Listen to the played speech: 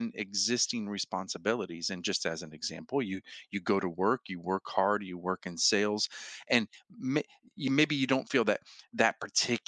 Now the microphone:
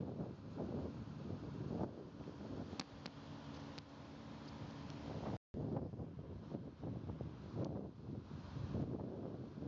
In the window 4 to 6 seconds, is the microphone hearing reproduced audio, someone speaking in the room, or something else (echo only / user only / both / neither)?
neither